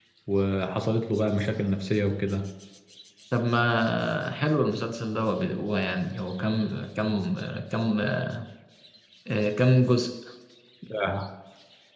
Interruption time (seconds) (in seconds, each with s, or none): none